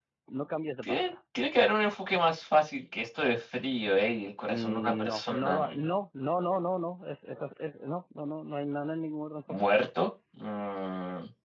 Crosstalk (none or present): present